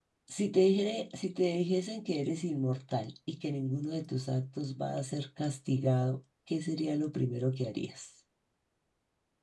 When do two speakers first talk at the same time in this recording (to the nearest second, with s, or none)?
none